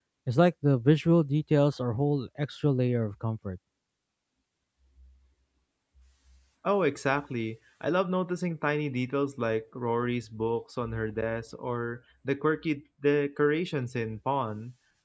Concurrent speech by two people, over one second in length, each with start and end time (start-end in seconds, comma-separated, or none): none